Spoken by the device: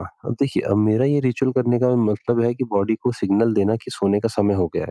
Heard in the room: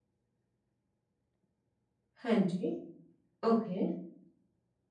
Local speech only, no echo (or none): हाँ जी ओके